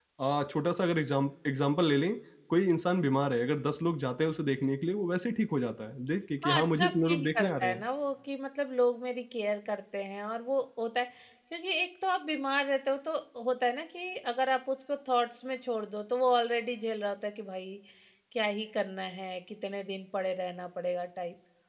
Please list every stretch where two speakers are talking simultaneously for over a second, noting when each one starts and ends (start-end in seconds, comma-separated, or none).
6.4-7.8